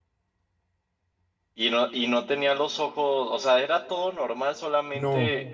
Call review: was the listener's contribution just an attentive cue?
No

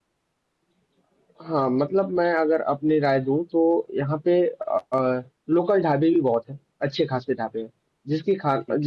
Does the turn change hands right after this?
No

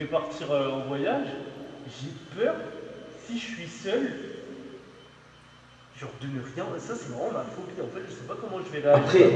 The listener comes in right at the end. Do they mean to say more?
Yes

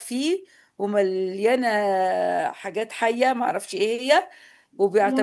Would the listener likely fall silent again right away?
Yes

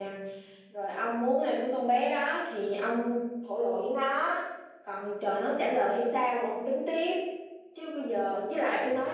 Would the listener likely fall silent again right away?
Yes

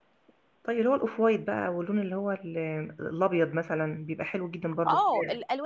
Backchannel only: No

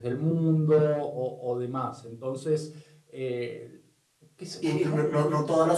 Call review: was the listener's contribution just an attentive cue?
No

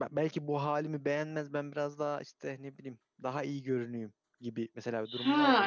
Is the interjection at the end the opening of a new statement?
Yes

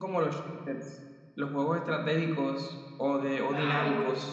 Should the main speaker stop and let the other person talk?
Yes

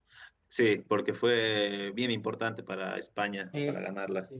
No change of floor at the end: No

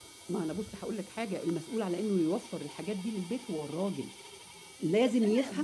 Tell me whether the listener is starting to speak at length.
Yes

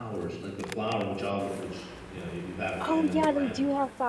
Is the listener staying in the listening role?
No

